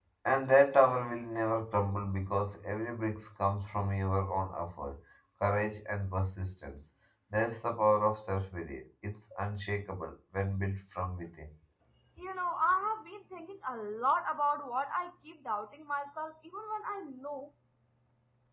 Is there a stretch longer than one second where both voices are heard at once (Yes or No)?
No